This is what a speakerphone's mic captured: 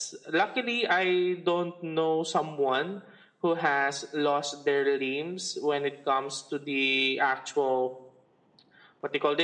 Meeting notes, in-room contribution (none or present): none